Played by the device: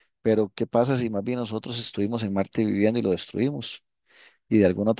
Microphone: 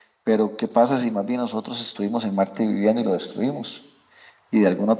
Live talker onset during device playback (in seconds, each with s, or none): none